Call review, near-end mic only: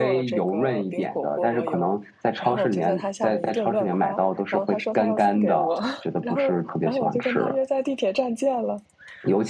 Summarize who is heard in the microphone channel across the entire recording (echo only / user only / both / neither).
both